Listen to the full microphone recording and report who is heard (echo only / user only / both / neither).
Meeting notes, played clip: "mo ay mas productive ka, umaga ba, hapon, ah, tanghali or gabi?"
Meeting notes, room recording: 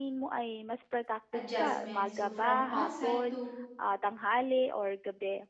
both